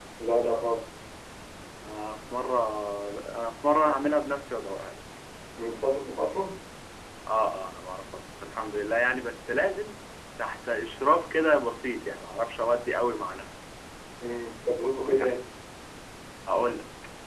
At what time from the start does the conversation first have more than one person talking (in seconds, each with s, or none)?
none